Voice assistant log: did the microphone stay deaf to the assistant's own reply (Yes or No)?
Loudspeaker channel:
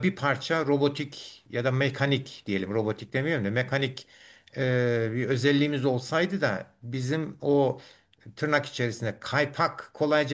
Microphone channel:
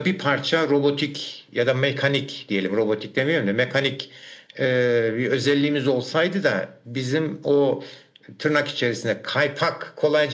No